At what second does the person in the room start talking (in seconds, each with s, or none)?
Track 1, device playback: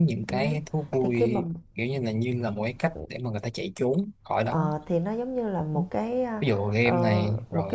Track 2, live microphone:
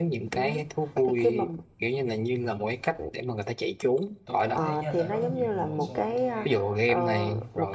4.2 s